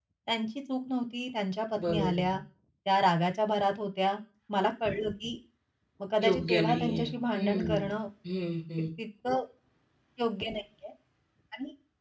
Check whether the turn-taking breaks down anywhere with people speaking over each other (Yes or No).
Yes